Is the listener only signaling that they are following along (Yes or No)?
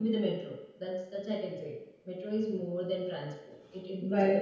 Yes